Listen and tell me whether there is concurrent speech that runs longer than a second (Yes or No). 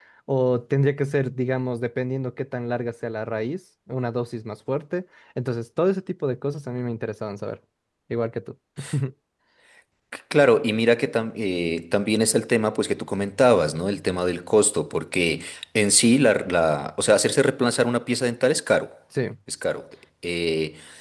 No